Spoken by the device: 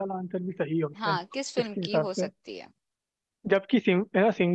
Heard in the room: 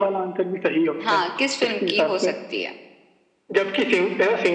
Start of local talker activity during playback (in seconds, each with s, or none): none